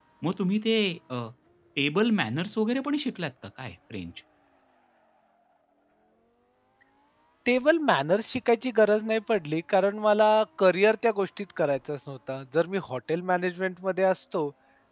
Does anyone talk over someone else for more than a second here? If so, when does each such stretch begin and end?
none

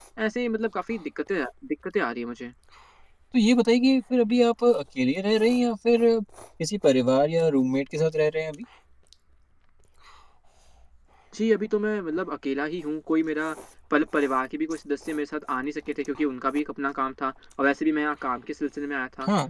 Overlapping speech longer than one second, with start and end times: none

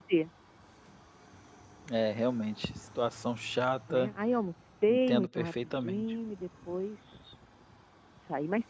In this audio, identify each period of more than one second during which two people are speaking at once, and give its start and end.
4.9-6.1

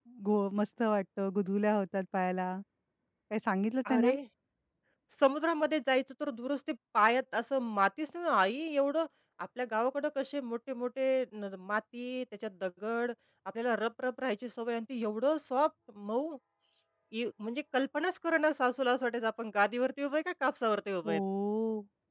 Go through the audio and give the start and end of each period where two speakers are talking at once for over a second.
none

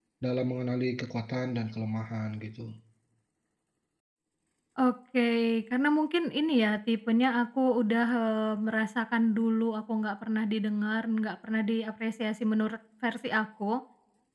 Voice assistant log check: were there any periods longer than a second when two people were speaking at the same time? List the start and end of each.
none

